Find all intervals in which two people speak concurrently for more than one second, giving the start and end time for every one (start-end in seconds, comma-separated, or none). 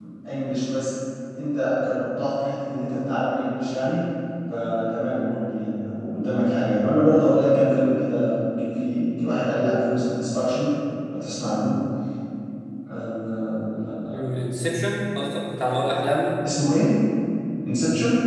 none